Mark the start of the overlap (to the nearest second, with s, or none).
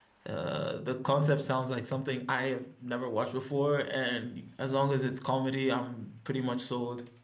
none